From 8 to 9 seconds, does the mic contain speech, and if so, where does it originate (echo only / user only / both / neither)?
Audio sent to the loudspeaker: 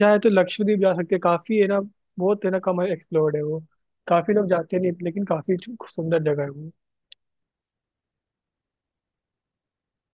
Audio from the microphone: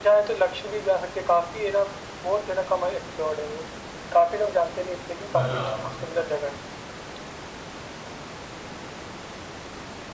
neither